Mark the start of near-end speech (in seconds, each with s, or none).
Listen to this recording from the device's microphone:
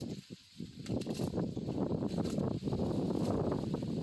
none